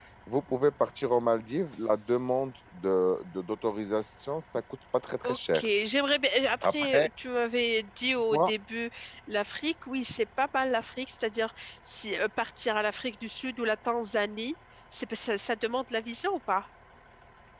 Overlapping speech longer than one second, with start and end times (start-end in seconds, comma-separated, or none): none